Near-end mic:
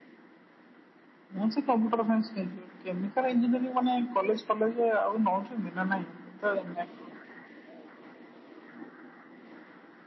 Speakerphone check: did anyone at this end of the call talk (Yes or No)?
No